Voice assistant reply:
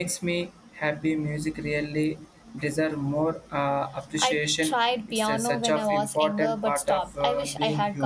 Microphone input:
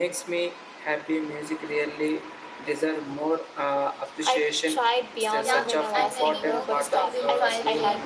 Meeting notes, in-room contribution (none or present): present